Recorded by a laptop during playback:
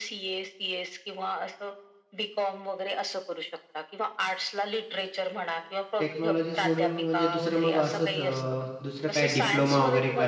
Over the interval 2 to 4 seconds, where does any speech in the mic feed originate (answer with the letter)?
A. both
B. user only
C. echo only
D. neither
C